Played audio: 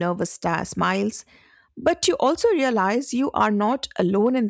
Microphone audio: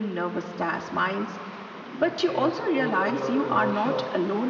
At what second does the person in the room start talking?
2 s

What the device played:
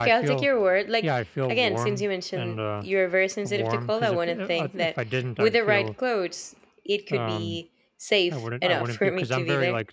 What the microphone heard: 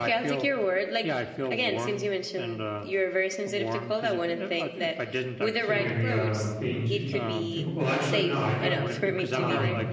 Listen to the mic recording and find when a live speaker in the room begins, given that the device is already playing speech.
6 s

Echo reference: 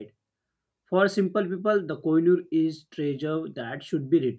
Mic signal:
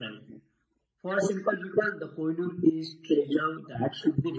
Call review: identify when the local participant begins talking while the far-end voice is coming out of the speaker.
none

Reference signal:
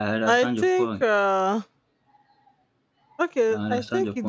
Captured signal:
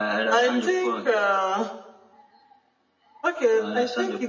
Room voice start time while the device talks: none

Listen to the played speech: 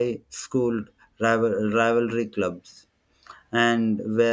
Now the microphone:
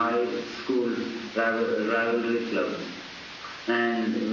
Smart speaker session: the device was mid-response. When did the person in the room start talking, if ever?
none

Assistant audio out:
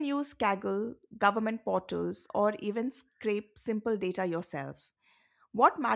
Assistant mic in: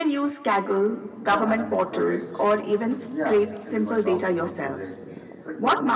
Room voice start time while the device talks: 1 s

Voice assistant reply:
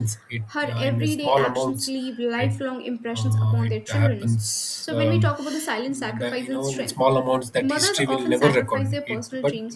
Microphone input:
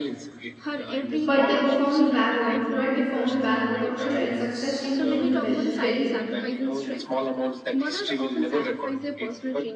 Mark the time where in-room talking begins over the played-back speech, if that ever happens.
1 s

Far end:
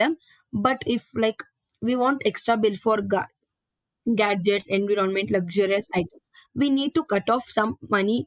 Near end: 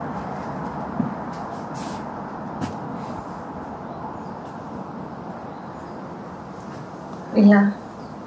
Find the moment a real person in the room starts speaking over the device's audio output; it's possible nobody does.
7 s

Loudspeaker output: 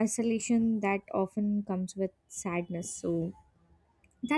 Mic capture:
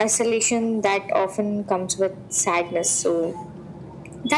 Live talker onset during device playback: none

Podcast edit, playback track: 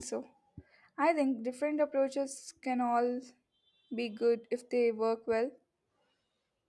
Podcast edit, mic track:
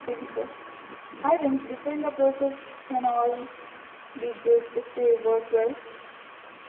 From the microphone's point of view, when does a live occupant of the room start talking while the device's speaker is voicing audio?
none

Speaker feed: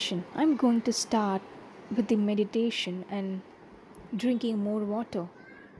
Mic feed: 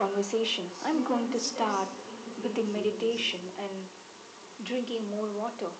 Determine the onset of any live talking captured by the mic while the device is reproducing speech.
1 s

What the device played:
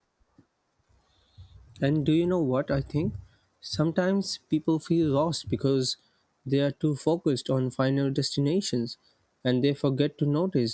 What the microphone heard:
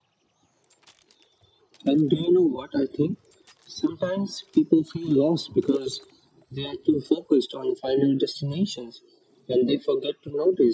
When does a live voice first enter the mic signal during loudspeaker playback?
none

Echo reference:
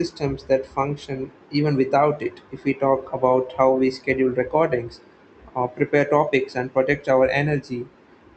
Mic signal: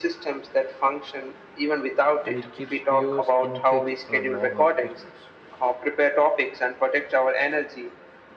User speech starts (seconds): 2 s

